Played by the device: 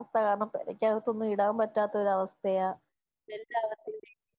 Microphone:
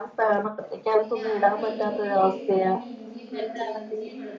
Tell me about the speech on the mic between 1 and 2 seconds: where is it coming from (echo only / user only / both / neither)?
both